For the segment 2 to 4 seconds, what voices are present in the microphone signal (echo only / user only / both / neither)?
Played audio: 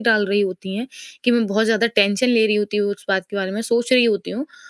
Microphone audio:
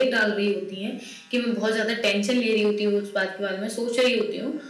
echo only